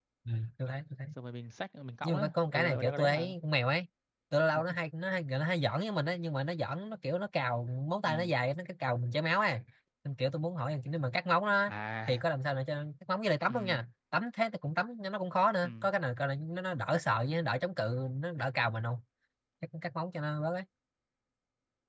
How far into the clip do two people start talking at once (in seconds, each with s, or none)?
2.0 s